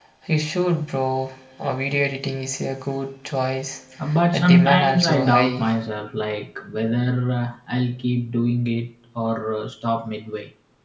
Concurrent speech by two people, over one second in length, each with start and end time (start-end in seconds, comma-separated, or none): 4.3-5.7